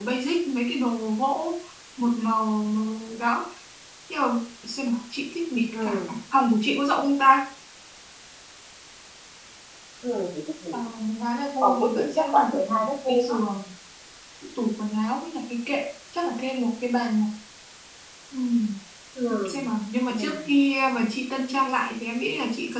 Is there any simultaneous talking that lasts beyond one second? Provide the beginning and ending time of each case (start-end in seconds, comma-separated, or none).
11.6-13.4